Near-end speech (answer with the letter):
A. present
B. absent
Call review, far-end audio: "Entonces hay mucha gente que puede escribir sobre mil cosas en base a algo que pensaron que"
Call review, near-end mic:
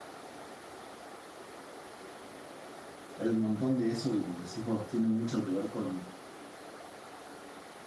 A